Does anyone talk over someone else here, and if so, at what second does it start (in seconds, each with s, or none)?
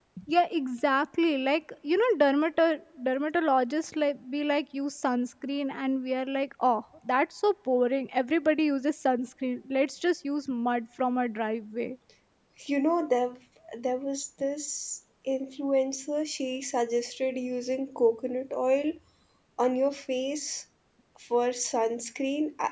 none